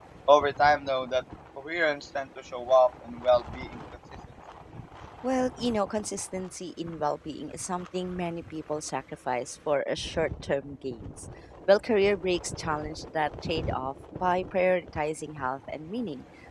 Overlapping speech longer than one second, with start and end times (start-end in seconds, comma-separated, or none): none